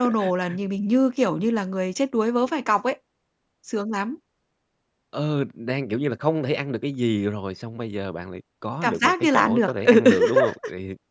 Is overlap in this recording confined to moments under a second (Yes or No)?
No